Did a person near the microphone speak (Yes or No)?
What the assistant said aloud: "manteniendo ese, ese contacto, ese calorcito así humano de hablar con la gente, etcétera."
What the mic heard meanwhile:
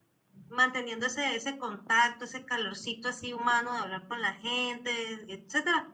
No